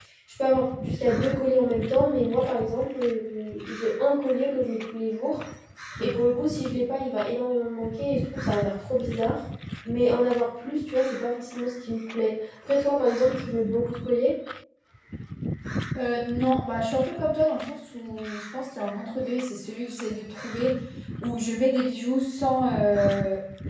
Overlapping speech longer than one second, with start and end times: none

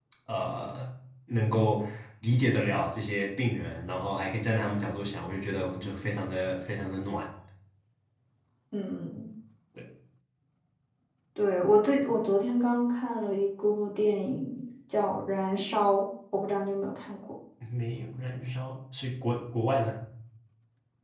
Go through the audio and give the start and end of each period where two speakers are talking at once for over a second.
none

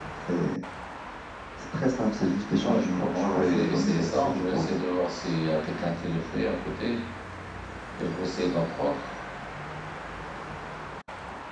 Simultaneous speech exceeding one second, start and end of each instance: 2.6-4.8

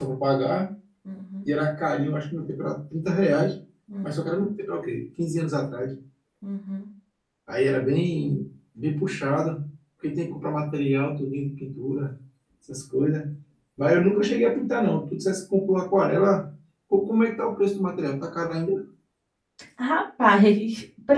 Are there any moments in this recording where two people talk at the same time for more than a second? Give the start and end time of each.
none

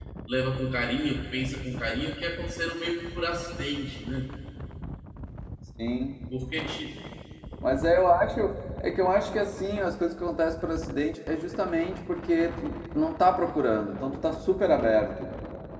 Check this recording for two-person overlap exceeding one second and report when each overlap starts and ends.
none

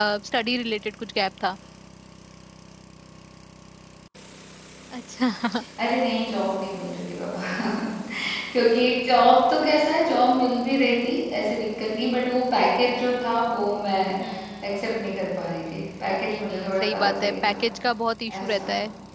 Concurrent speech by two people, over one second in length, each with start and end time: 16.3-17.6

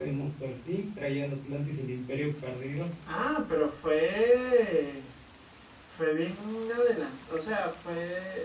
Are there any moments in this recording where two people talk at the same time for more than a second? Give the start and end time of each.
none

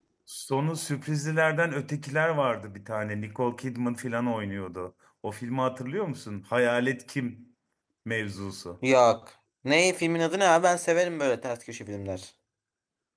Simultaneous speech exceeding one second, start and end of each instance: none

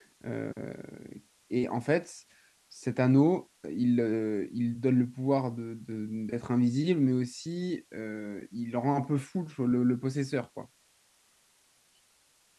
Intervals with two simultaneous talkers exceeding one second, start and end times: none

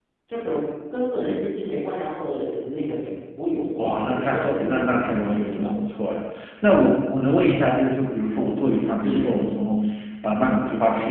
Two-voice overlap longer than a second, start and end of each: 3.8-5.8

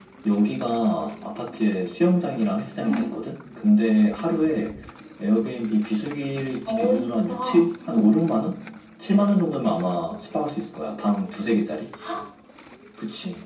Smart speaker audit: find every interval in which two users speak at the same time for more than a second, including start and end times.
6.7-8.1

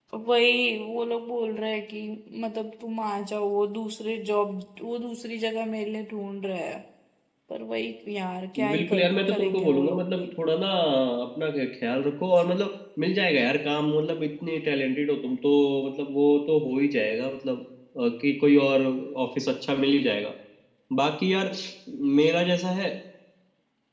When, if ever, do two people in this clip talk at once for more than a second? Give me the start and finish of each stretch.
8.7-10.3

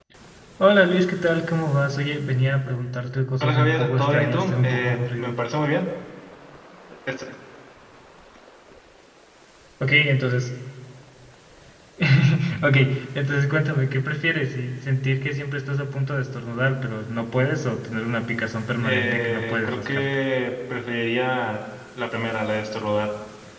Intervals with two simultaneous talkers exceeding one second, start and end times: 3.4-5.3, 18.8-20.1

